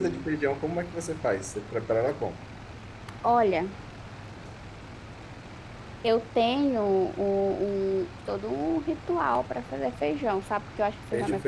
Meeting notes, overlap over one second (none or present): none